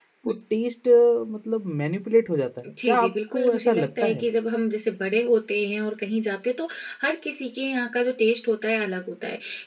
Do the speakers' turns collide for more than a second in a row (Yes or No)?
Yes